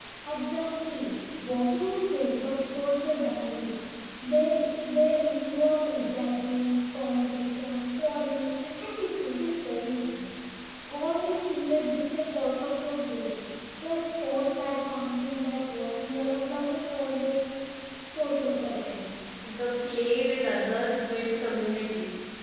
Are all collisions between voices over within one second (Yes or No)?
Yes